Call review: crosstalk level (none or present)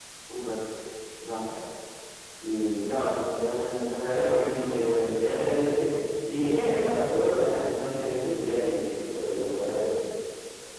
present